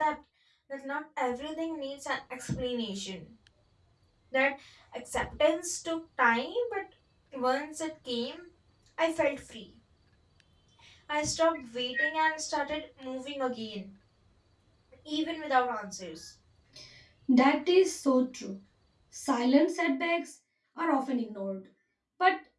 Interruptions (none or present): none